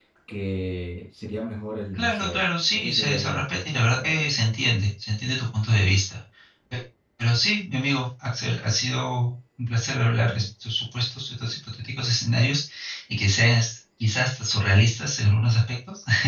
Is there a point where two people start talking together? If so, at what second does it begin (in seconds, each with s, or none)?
1.9 s